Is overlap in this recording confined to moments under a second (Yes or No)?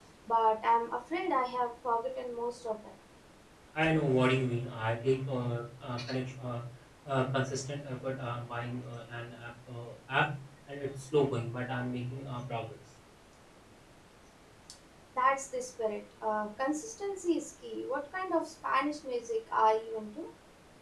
Yes